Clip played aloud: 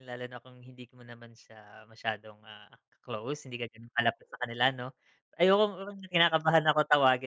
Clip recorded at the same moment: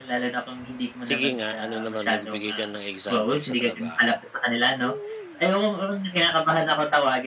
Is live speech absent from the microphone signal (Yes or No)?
No